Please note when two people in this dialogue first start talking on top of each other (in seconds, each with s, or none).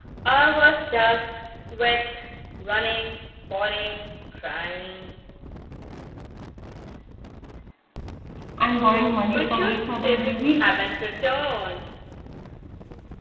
9.3 s